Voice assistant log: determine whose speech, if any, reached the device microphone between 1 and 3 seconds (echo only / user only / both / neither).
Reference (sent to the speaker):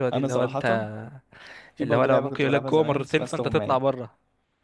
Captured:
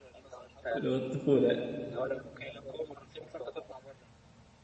both